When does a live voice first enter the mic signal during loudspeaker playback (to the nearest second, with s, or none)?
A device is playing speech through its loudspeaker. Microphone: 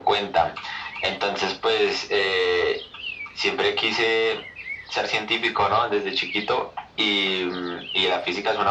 none